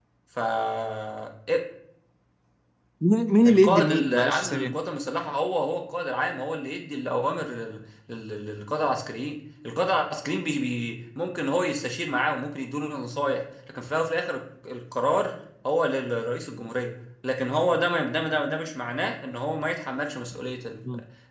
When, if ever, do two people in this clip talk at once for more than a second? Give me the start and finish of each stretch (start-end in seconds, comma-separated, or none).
3.5-4.8